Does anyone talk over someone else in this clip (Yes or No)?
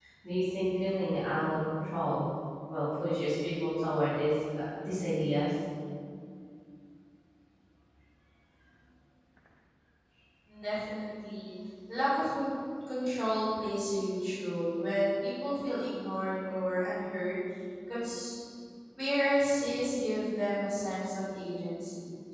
No